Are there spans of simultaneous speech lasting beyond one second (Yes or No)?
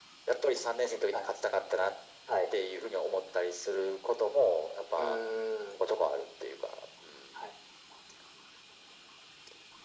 No